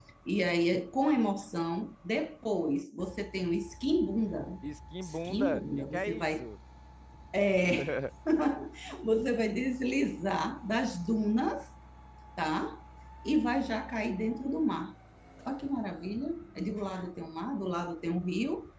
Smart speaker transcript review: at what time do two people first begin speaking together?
5.0 s

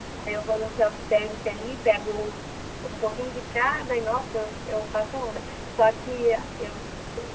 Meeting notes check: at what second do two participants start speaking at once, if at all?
none

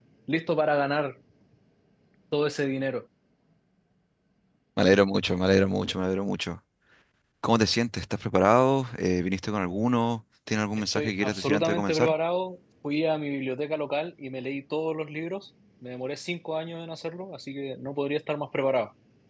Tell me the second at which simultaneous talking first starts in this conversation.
10.9 s

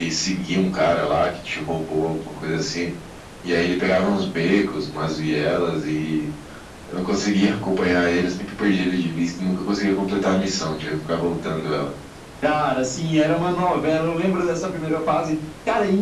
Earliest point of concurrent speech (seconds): none

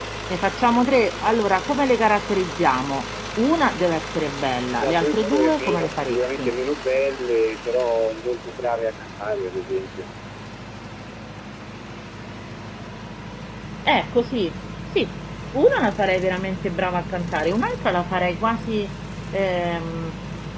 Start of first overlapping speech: 4.8 s

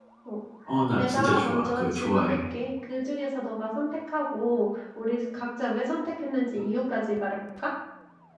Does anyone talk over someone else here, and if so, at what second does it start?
1.0 s

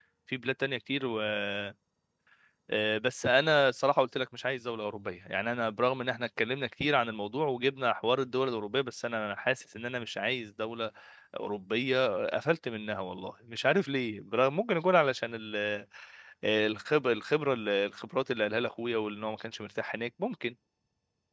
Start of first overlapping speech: none

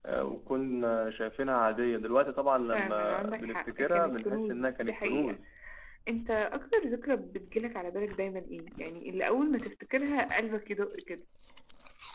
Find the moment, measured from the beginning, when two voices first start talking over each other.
2.7 s

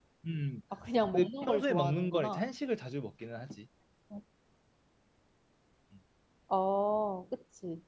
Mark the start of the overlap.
1.1 s

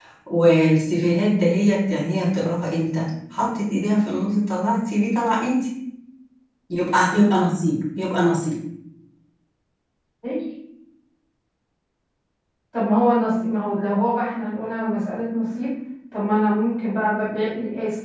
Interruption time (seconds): none

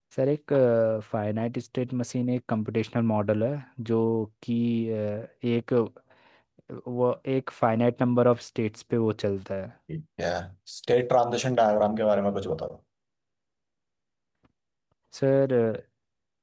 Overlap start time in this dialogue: none

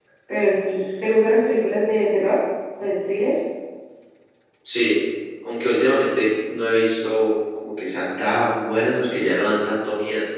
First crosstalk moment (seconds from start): none

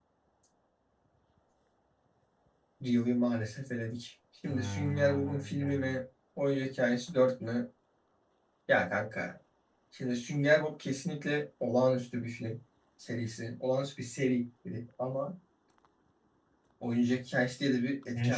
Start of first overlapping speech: 4.5 s

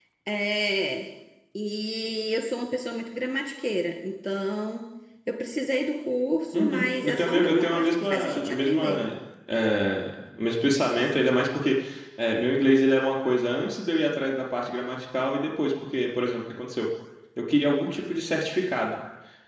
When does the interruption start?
6.5 s

